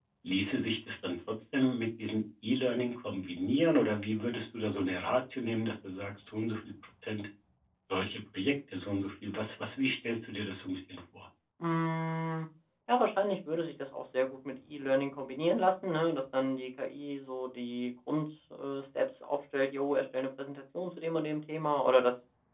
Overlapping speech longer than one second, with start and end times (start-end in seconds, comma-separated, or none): none